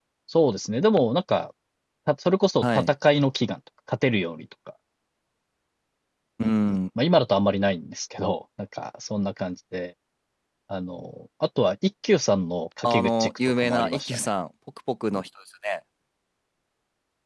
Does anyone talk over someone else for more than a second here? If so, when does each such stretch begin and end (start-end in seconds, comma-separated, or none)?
12.8-14.3